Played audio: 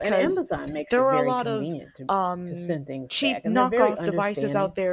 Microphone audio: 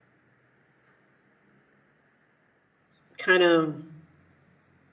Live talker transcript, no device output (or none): kind of